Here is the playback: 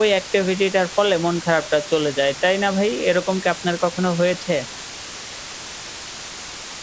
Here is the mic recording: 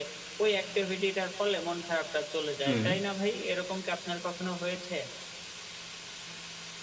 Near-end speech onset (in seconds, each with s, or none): 2.6 s